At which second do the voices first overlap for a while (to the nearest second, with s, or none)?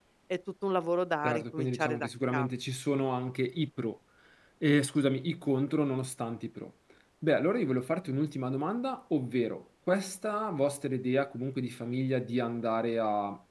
1 s